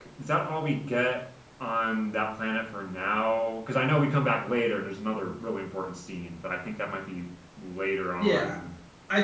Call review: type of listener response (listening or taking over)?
taking over